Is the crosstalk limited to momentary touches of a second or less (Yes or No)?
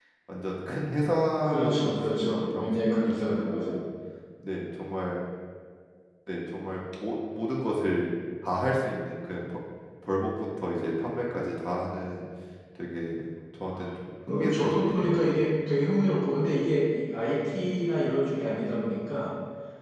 No